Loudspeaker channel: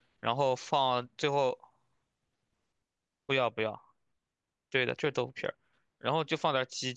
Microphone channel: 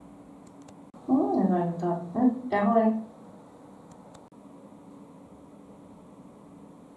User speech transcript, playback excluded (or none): 嗯，那有道理，嗯，然后嘞？